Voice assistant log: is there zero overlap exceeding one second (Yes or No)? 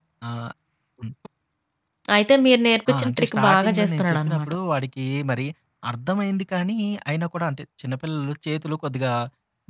No